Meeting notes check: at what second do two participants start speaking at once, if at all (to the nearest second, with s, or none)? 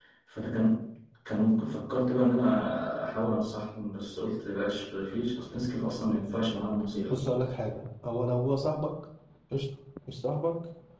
none